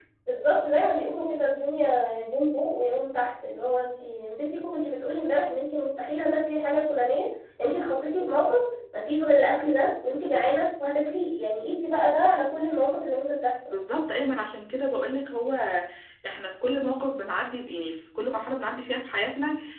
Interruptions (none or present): none